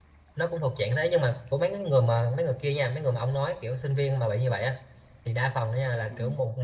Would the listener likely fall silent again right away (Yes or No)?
Yes